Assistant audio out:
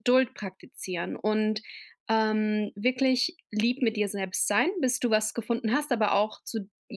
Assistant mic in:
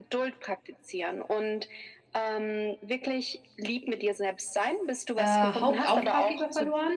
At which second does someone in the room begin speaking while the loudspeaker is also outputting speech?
5.2 s

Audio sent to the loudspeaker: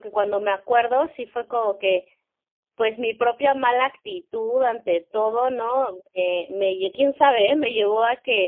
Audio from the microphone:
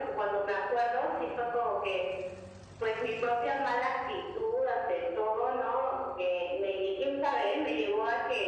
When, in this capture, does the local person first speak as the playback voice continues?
none

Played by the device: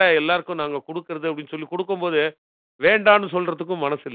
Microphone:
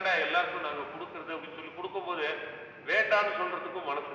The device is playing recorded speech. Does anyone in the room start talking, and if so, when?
none

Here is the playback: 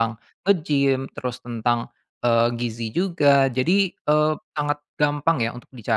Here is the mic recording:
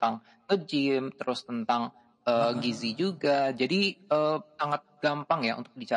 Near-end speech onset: 2.4 s

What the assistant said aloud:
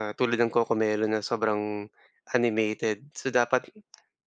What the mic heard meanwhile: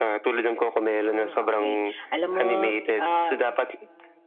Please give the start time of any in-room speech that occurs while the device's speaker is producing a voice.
0.8 s

